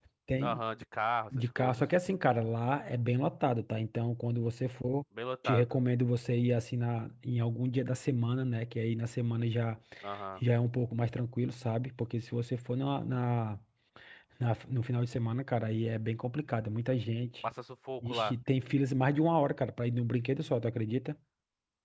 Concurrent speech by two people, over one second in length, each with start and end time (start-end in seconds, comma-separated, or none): none